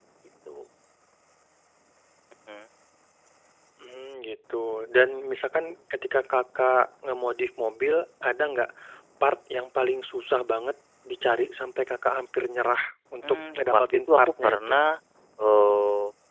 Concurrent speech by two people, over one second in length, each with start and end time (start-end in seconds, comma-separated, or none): 13.2-14.8